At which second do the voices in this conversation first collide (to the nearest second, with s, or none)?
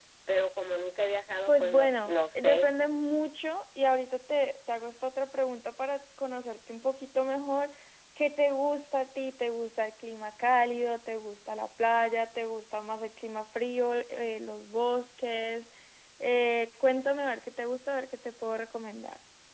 1 s